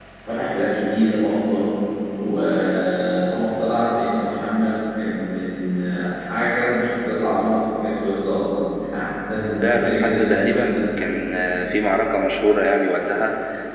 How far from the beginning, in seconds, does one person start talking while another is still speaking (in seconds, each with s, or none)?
9.6 s